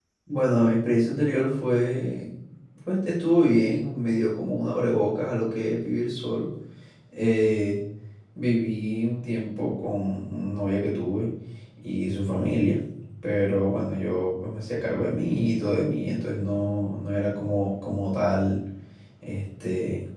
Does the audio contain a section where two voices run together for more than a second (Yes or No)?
No